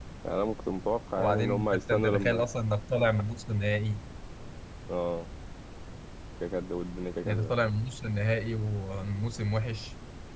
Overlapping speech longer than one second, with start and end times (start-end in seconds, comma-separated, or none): 1.2-2.5